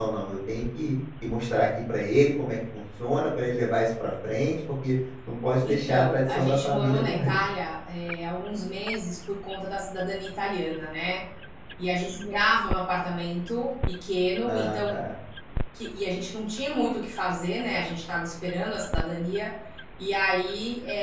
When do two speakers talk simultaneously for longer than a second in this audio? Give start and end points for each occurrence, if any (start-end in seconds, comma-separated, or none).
5.6-7.3